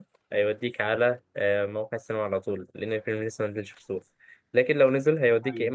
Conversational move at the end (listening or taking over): listening